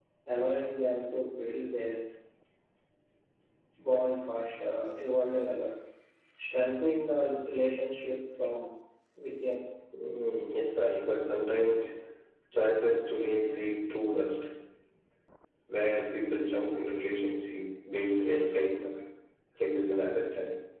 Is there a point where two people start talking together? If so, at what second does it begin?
none

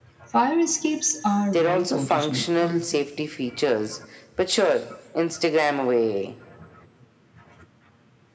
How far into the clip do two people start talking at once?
1.5 s

